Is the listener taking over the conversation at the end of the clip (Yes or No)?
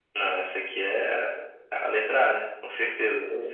Yes